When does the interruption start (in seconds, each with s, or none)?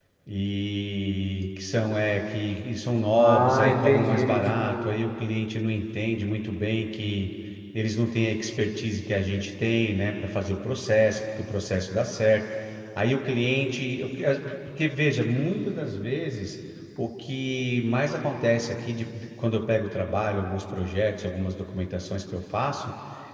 3.1 s